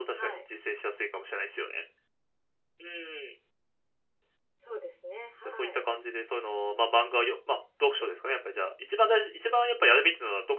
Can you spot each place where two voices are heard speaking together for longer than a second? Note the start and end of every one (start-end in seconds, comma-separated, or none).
none